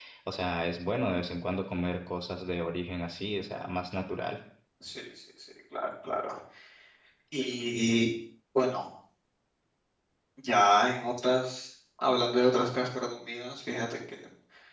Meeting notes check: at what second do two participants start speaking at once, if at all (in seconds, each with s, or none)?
none